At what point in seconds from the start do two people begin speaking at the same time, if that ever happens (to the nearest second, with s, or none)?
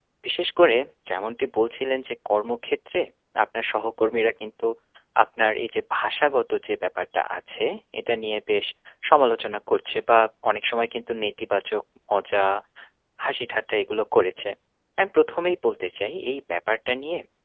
none